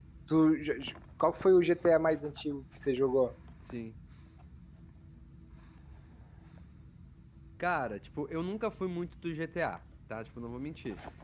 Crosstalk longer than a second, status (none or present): none